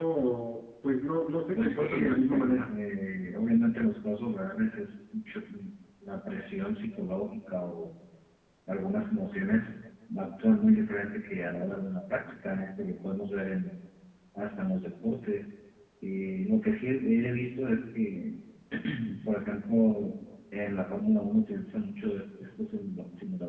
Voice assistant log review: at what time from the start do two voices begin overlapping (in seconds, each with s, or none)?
1.6 s